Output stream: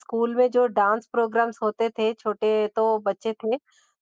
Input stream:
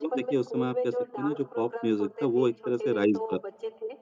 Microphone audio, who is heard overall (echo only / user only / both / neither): both